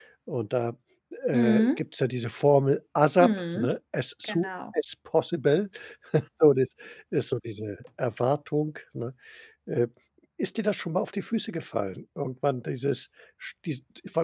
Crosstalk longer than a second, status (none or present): none